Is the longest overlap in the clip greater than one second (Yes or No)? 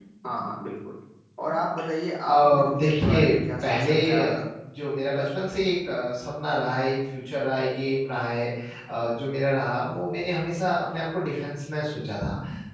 Yes